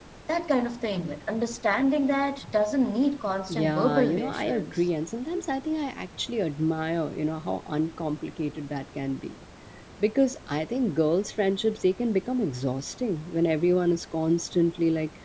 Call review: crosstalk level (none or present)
present